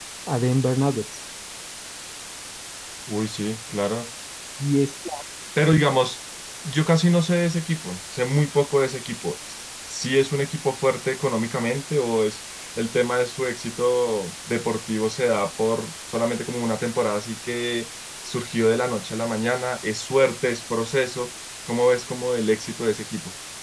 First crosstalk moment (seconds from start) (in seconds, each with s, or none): none